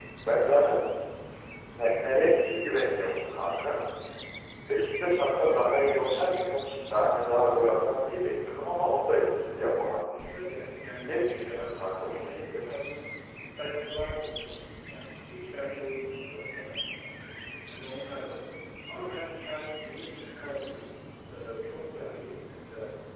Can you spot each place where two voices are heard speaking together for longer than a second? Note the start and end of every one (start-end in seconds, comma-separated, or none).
11.1-12.6